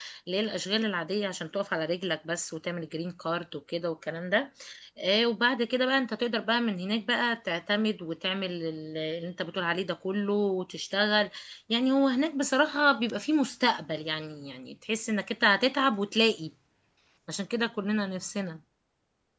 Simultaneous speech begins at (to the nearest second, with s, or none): none